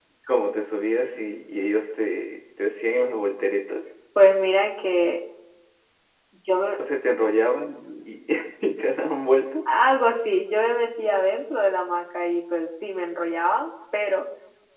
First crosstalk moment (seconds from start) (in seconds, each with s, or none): none